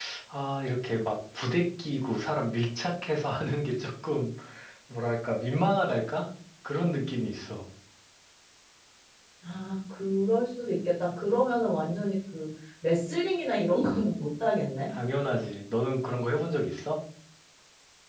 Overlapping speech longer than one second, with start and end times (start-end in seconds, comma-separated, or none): none